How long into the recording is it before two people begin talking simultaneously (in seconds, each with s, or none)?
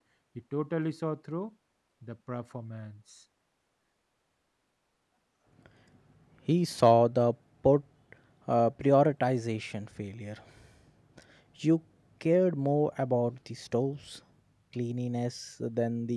none